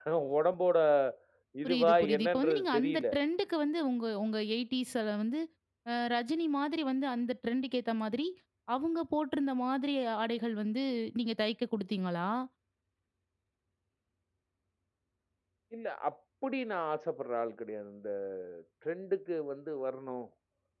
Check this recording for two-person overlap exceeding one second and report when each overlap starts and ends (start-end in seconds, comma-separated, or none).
1.6-3.0